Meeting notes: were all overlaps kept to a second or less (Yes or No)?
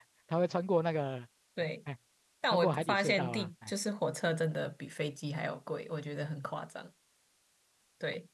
No